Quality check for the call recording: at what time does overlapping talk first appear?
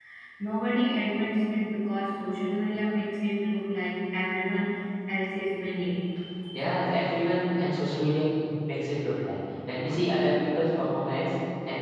none

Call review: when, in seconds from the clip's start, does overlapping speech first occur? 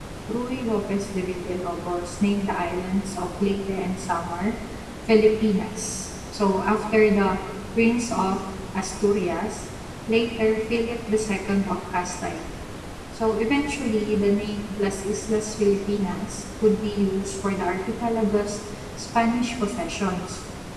none

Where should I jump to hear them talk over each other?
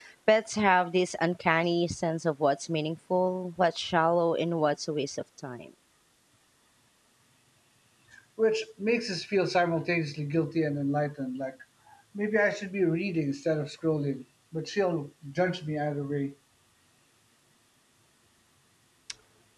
none

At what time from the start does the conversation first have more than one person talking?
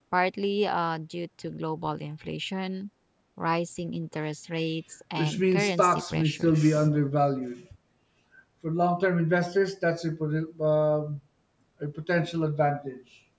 5.2 s

